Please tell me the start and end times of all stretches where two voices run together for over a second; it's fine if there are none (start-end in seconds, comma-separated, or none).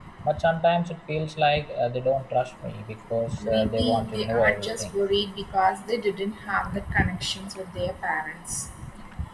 3.5-4.9